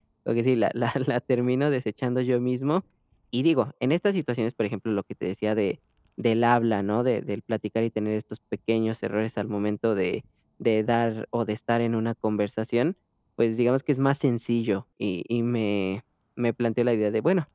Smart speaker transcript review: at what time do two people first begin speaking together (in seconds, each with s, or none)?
none